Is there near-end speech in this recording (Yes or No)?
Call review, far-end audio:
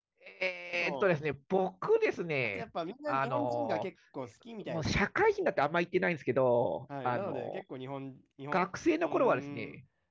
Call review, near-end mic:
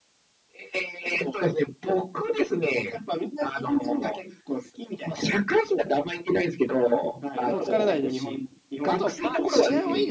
Yes